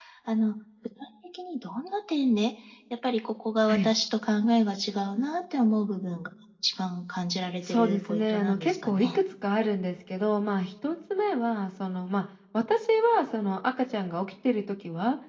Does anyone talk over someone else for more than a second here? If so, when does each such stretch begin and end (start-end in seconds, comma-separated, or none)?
7.7-9.2